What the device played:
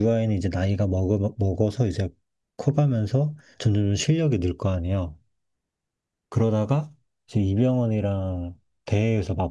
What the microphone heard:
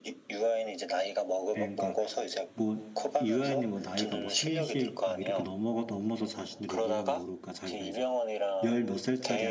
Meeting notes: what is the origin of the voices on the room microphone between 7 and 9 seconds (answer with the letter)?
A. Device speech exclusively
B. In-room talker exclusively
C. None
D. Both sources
D